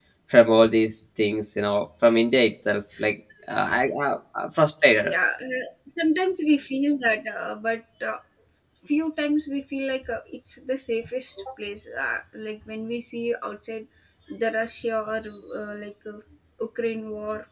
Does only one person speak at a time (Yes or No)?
Yes